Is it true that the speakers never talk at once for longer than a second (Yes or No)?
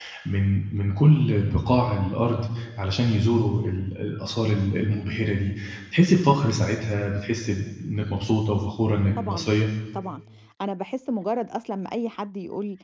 Yes